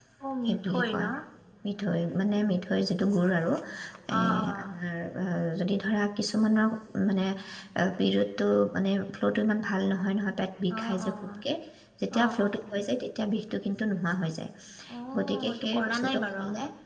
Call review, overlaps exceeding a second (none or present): present